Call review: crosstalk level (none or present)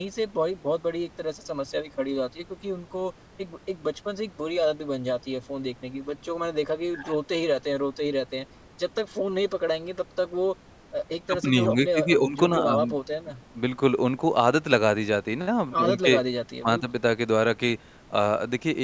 present